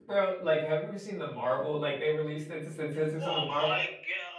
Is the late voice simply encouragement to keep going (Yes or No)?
No